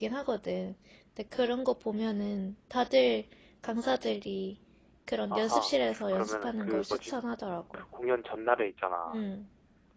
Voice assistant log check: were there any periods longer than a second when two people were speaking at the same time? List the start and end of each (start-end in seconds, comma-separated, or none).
5.3-7.1